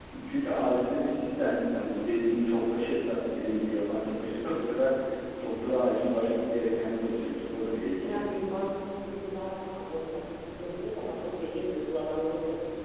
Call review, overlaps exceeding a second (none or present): none